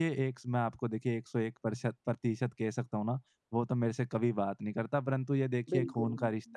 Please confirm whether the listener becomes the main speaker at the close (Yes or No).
No